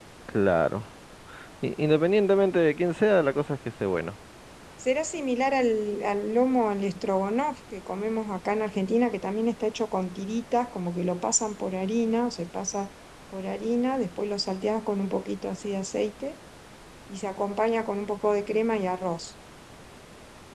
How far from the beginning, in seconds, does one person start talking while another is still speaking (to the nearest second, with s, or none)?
none